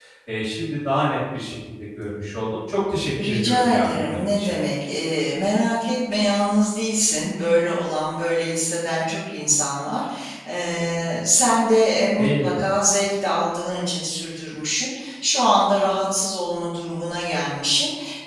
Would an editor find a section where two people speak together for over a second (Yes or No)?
Yes